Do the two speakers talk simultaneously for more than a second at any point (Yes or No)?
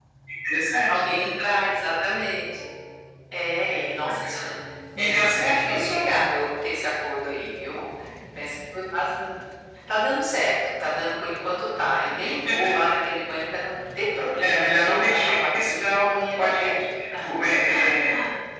Yes